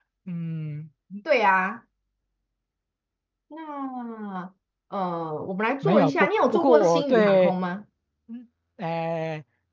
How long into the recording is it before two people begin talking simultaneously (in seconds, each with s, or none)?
5.8 s